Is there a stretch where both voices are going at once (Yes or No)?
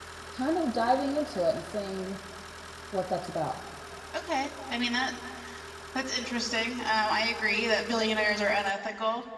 No